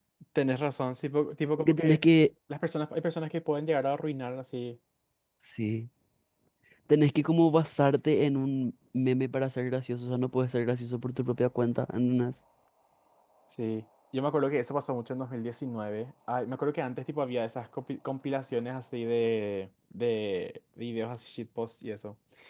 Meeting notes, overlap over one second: none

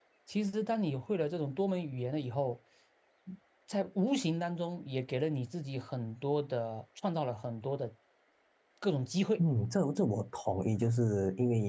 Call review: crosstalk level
none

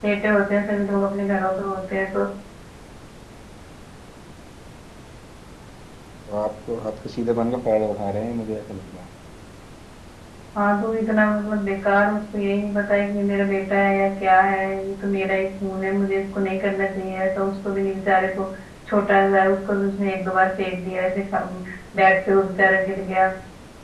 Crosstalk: none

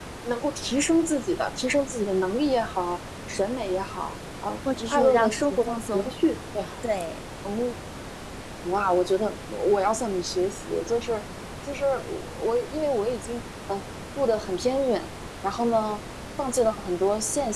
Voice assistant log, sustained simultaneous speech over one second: present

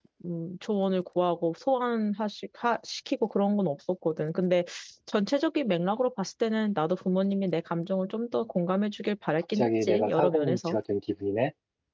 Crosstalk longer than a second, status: present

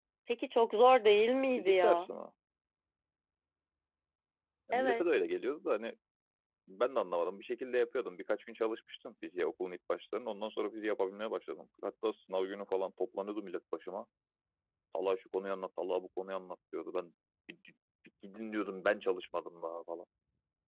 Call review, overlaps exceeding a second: none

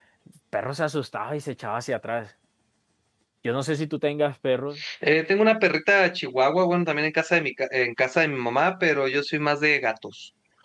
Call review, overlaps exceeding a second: none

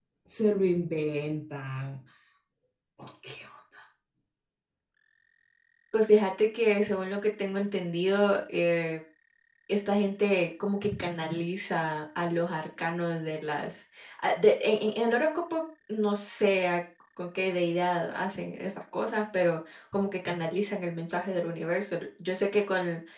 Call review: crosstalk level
none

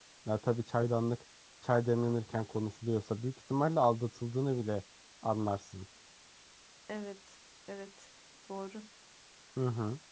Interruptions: none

